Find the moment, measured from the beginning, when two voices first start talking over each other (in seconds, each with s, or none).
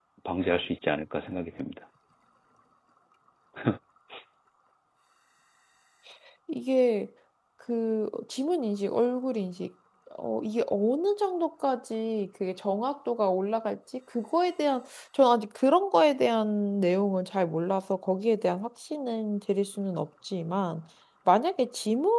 none